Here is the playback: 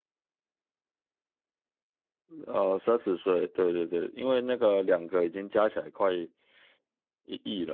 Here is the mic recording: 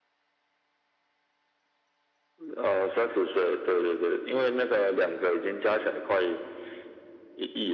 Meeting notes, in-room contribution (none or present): none